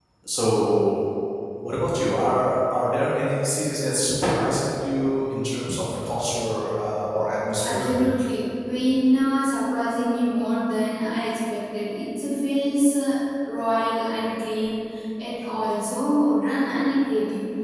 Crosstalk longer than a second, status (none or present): none